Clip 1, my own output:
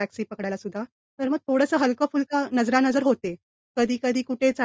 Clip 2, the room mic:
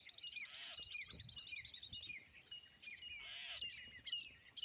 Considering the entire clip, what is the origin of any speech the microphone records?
neither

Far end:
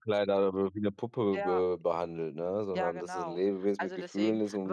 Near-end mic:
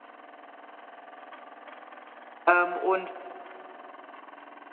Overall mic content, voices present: user only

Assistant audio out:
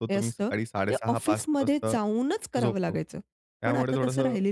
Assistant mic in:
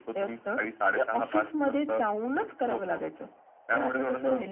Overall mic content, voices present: echo only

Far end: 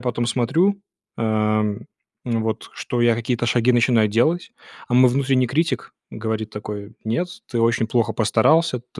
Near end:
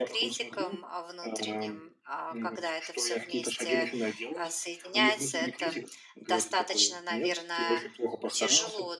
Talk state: both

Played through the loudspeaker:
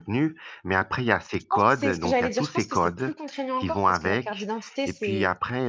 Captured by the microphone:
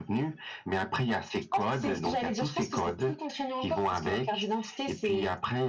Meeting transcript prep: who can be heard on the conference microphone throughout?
echo only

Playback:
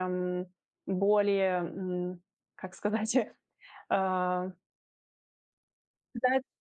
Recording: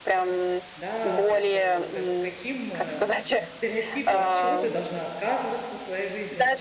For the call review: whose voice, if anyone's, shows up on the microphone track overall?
both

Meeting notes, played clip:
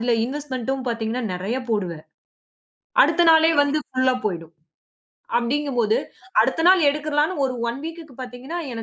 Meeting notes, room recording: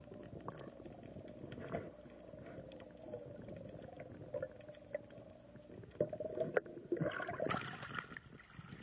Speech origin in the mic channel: neither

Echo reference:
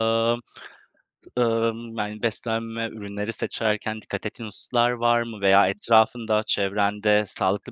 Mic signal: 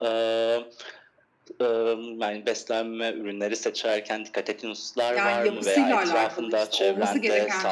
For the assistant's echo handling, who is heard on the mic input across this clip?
both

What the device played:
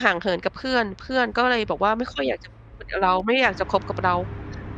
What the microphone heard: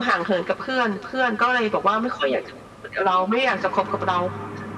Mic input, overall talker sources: echo only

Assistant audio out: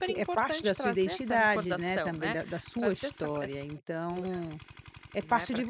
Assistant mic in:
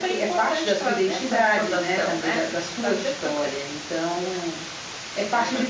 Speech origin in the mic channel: echo only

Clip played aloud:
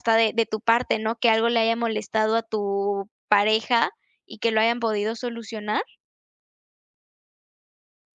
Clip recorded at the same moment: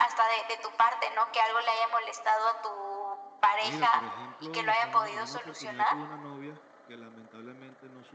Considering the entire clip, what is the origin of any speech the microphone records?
both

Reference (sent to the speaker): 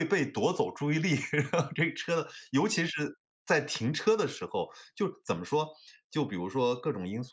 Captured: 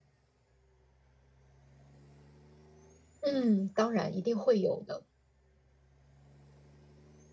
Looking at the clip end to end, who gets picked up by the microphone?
user only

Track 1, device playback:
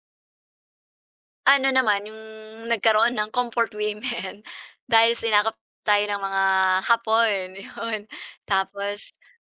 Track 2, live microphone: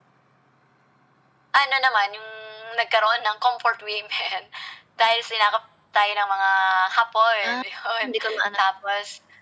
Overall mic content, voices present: both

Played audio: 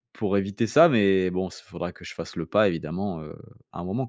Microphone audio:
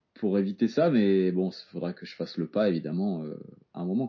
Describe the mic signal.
echo only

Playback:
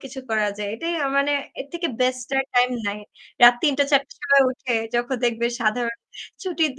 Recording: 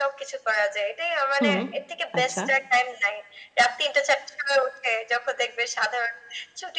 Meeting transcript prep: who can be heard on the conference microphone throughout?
both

